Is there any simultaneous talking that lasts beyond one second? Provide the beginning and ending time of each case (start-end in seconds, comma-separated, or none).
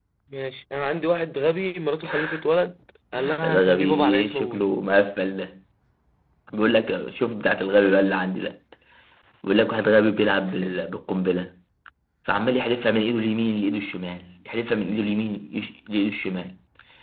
3.4-4.7